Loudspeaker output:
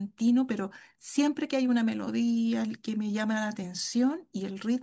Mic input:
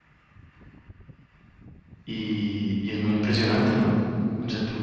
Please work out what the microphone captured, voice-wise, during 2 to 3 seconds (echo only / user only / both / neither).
user only